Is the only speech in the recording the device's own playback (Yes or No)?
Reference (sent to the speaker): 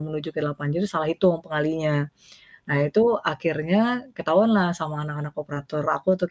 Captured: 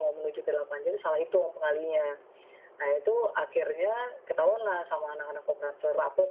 Yes